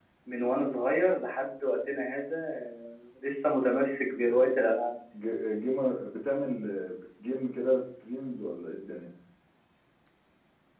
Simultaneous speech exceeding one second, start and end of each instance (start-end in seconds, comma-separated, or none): none